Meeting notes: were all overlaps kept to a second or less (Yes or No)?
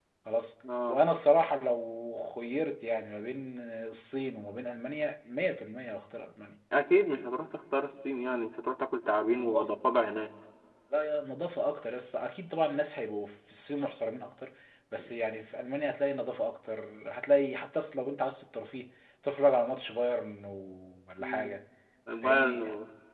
Yes